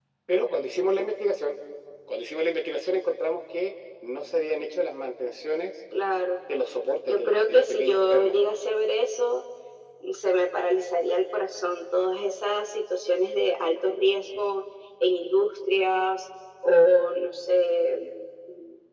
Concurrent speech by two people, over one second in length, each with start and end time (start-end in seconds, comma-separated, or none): 7.1-8.3